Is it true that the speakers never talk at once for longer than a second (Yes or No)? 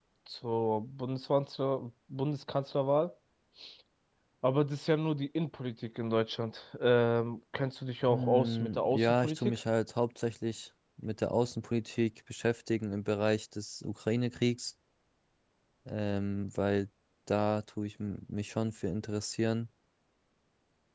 No